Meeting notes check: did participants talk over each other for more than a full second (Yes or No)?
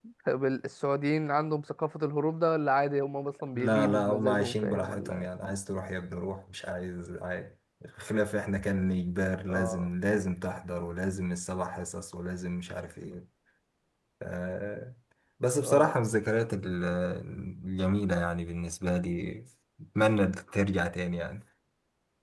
Yes